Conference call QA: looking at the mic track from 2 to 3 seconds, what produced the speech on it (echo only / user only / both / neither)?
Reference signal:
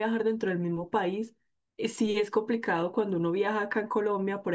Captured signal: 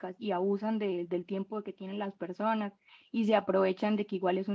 user only